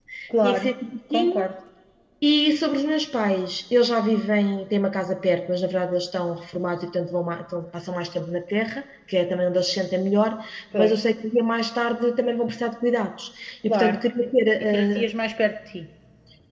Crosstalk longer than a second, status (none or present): none